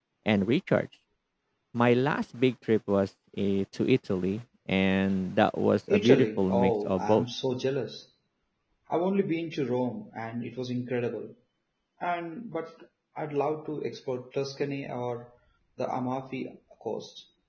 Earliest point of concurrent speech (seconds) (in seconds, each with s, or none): 5.9 s